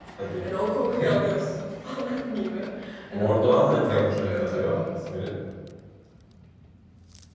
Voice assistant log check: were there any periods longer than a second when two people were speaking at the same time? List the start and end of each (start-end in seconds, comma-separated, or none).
3.1-4.8